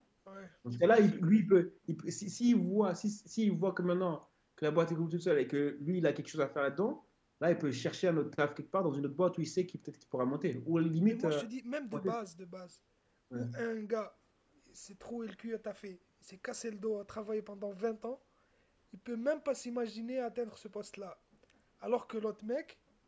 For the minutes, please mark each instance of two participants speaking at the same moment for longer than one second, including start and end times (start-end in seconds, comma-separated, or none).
none